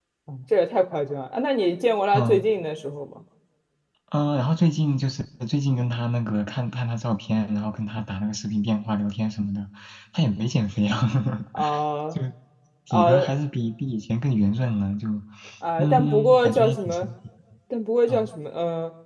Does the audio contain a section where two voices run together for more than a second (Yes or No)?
Yes